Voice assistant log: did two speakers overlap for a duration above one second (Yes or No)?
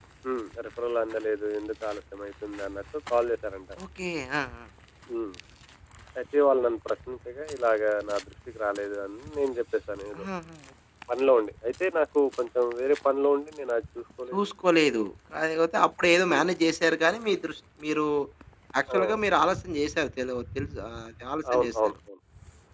No